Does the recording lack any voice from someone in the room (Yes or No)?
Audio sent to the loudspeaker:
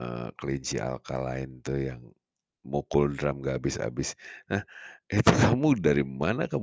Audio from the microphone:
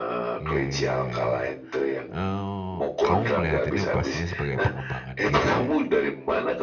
No